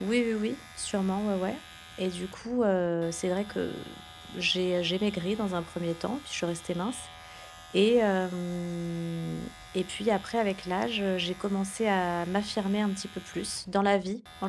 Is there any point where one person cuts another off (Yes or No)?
No